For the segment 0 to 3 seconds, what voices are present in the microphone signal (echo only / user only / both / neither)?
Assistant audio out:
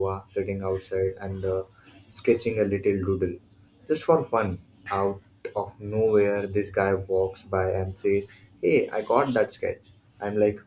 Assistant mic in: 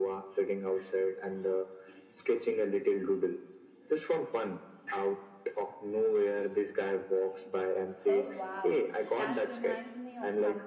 echo only